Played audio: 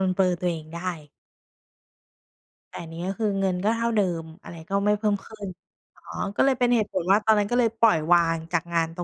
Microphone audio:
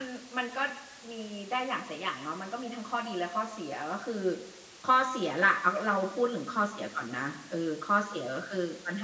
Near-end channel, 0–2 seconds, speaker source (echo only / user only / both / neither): user only